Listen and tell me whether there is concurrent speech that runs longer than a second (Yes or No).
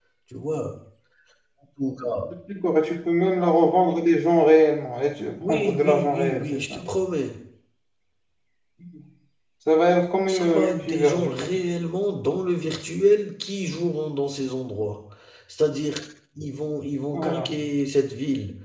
Yes